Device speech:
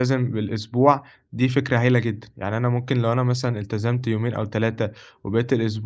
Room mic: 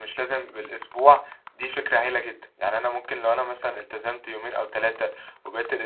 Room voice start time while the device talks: none

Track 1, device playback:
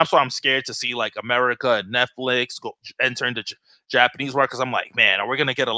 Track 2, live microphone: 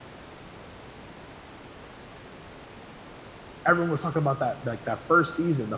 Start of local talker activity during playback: 3.6 s

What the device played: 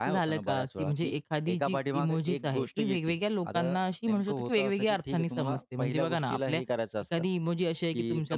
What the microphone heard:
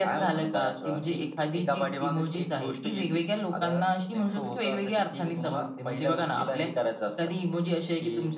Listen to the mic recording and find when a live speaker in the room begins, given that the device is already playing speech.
none

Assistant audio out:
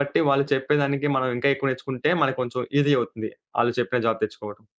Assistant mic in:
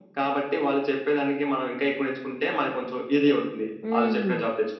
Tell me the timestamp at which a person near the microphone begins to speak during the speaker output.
3.8 s

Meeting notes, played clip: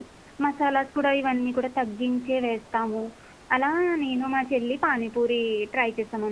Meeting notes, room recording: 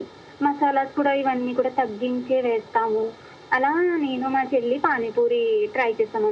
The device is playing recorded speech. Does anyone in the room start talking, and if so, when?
none

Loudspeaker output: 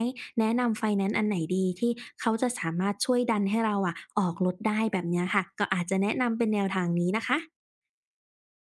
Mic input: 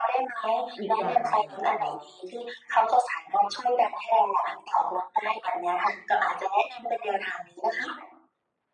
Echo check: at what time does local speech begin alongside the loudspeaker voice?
0.8 s

